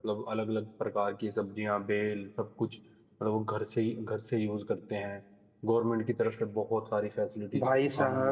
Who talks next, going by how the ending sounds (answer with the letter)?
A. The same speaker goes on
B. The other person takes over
B